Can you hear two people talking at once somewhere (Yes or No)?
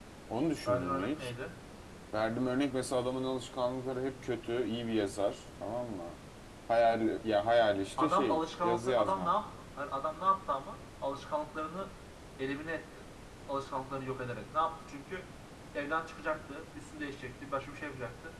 Yes